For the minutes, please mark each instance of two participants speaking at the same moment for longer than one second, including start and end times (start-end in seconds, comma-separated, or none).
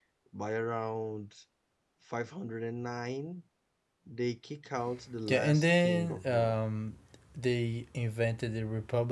5.3-6.6